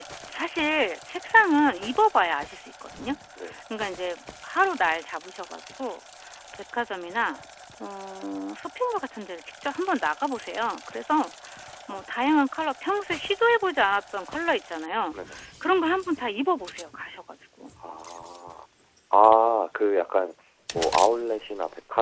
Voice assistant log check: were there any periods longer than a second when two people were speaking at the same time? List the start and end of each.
none

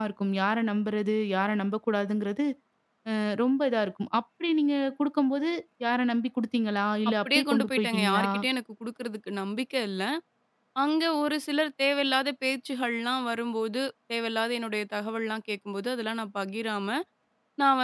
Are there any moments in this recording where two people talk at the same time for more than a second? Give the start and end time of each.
7.1-8.3

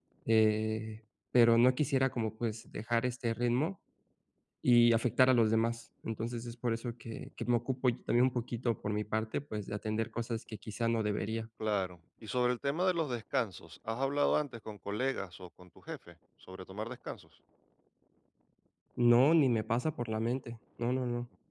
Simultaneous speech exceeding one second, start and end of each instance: none

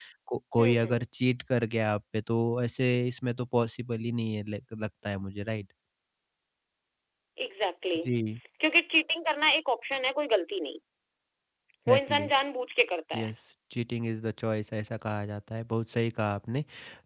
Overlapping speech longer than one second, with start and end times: none

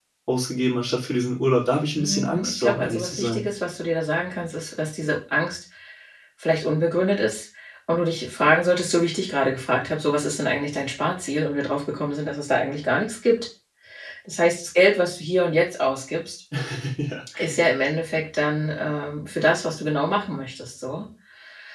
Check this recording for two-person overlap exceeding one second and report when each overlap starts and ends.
2.0-3.4

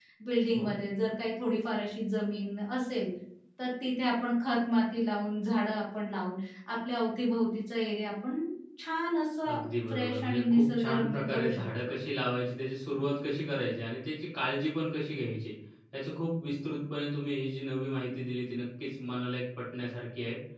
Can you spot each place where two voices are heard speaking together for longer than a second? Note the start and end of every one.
9.5-11.6

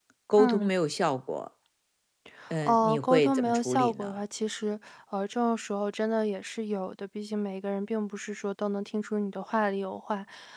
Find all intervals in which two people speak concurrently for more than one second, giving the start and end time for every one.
2.6-4.2

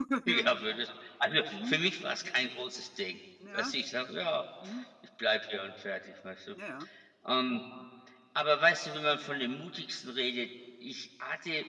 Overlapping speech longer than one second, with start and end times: none

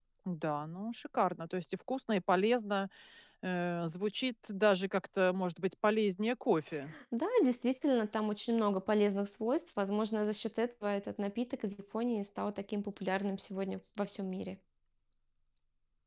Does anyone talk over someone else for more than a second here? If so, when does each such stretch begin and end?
none

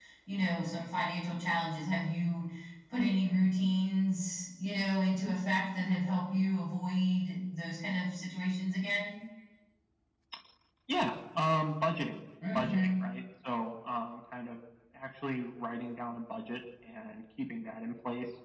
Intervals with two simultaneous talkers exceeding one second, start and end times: none

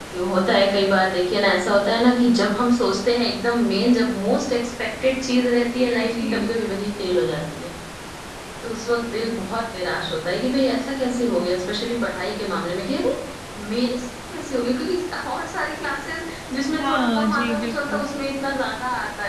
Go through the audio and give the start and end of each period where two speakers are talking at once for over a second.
16.8-18.0

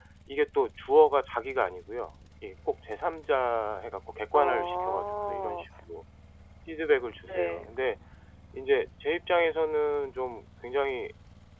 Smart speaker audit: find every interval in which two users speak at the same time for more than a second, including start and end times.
4.3-5.6

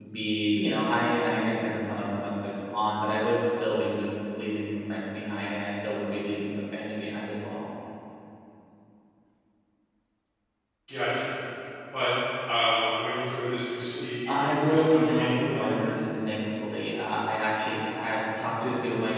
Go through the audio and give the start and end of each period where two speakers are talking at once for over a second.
14.3-15.8

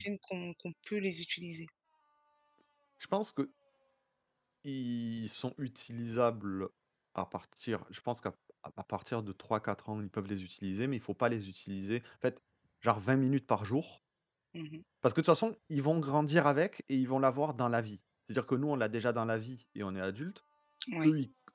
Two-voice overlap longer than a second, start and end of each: none

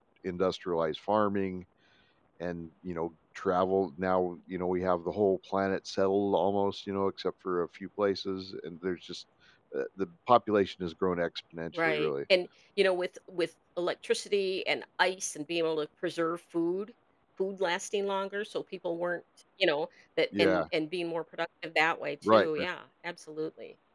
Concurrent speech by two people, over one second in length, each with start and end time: none

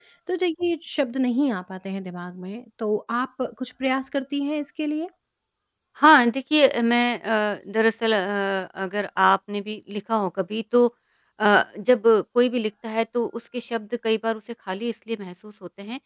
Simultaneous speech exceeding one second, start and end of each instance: none

